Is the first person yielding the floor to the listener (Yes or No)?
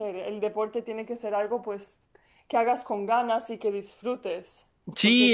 Yes